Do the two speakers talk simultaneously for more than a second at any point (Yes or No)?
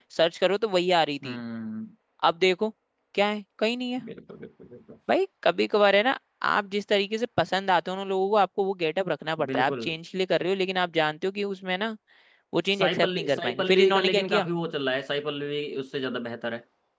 Yes